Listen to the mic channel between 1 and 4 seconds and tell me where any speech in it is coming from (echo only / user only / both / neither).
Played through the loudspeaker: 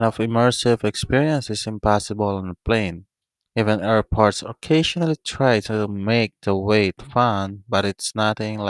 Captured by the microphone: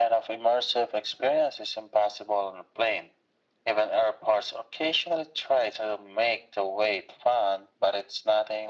echo only